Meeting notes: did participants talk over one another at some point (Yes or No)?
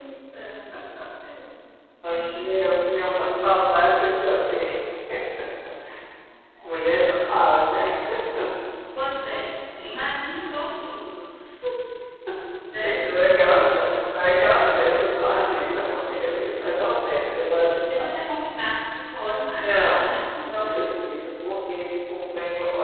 Yes